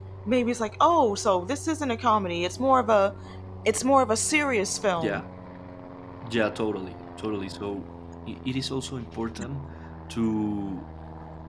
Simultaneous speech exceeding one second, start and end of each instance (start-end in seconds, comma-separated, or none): none